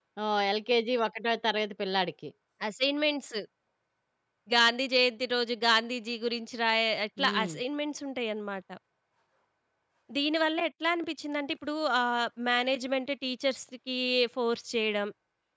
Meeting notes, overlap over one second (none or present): none